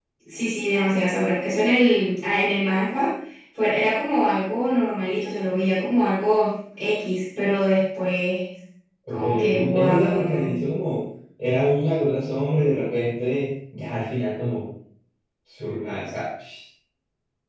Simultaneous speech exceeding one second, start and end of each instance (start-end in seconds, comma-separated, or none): 9.1-10.5